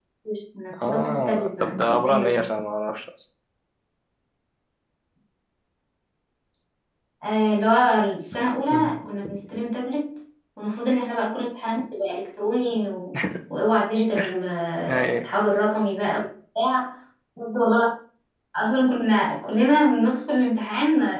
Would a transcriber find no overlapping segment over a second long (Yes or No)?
No